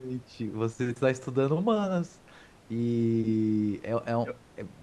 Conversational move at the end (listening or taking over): listening